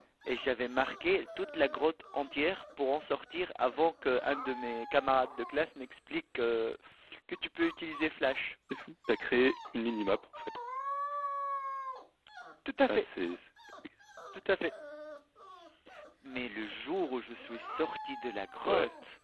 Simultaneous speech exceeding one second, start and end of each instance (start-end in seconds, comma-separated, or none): none